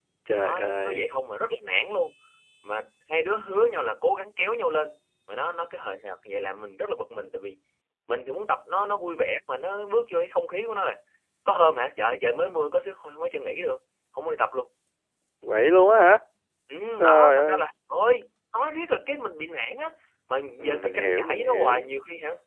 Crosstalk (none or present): present